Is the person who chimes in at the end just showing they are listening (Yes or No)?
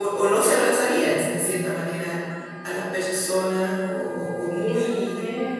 No